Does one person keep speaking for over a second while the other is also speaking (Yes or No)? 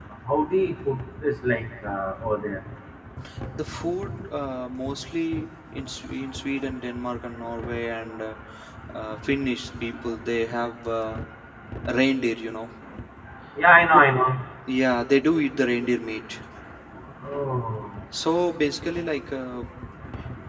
No